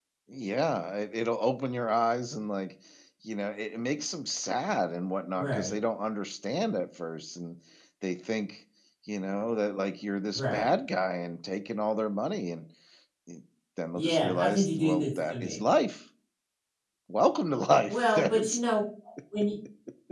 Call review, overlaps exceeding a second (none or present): present